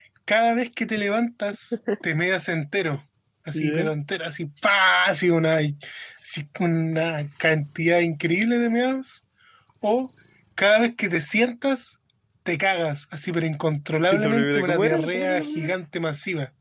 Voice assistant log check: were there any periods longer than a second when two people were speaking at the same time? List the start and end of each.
14.1-15.7

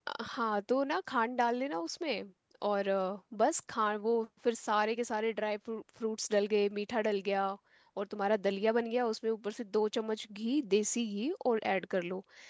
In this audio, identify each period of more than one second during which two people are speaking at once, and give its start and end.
none

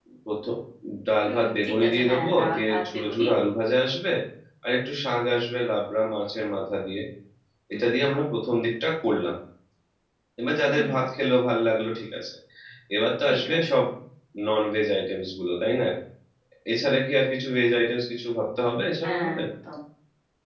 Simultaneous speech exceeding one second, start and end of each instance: 1.2-3.2

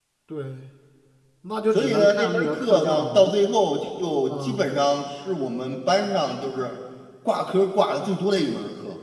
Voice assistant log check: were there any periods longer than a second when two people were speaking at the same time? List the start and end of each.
1.7-3.3

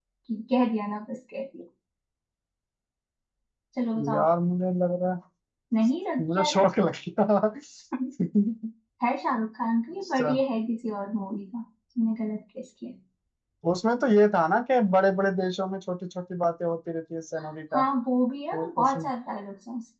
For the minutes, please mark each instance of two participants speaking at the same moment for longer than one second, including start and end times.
none

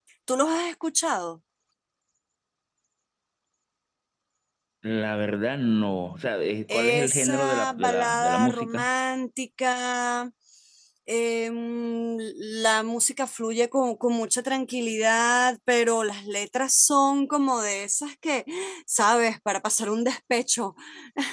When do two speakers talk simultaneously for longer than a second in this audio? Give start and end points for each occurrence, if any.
6.7-8.9

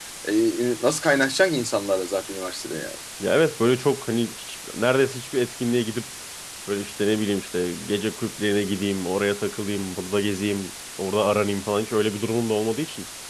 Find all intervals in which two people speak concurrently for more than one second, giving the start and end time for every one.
none

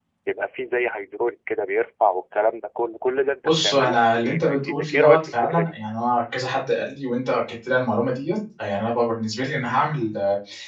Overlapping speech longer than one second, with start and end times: 3.4-5.7

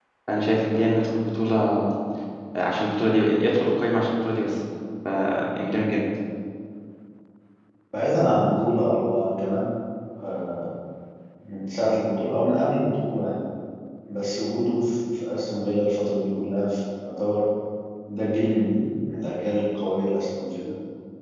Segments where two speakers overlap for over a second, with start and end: none

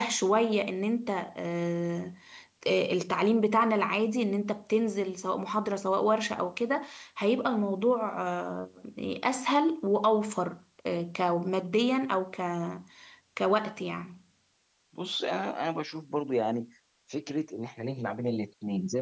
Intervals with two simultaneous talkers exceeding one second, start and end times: none

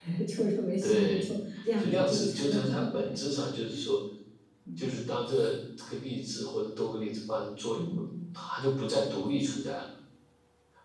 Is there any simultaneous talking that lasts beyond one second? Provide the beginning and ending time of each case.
1.8-3.1

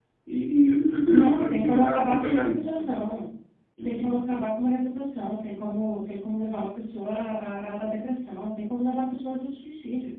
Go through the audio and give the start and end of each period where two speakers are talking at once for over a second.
1.1-2.9

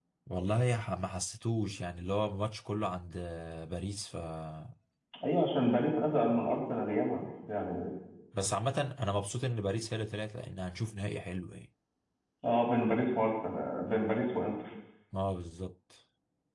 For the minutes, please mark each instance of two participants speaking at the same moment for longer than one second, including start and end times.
none

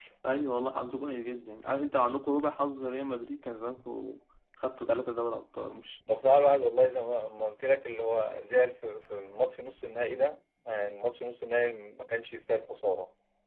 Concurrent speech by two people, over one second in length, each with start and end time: none

